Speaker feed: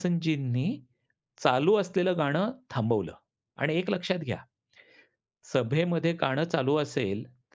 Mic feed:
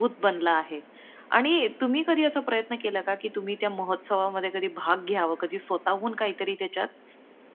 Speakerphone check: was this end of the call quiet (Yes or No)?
No